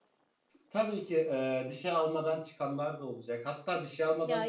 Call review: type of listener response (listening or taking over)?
listening